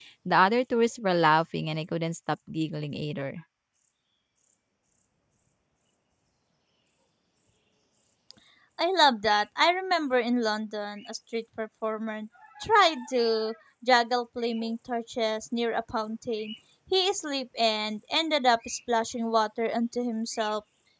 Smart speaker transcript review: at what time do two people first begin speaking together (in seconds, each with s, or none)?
none